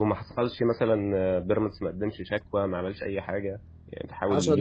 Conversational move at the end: taking over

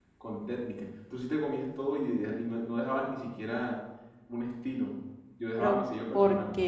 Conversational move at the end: taking over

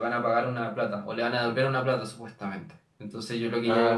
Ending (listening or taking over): listening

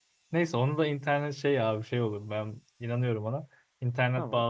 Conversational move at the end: listening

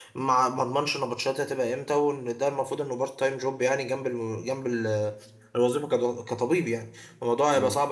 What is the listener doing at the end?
listening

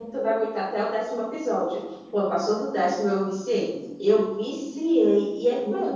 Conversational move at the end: listening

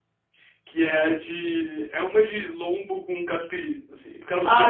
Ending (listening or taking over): taking over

